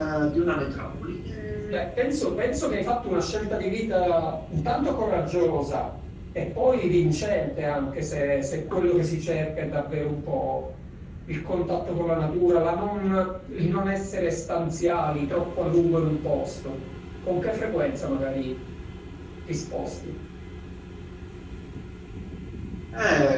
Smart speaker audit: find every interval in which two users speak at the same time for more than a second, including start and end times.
none

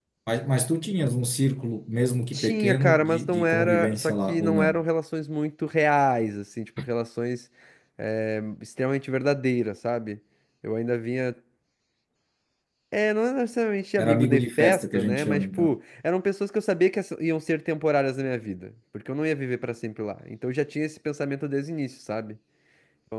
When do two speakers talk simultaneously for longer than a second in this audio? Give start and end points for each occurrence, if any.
2.3-4.8, 14.0-15.8

